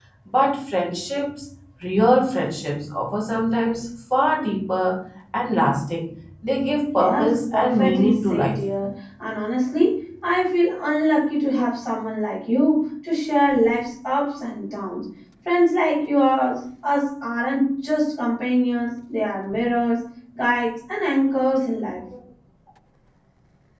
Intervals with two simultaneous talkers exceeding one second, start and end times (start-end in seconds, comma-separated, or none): 7.0-8.6